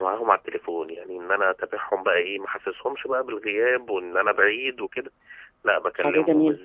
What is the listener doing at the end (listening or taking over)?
listening